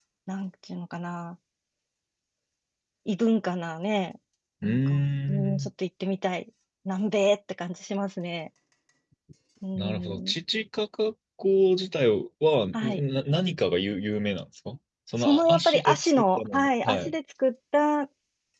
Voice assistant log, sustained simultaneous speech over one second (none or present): present